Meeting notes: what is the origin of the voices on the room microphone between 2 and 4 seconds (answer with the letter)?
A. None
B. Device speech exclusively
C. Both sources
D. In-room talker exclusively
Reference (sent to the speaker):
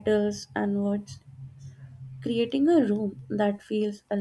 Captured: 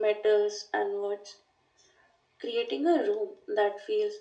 B